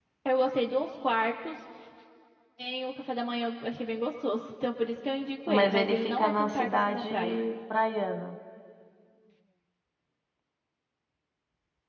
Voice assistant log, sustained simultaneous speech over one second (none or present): present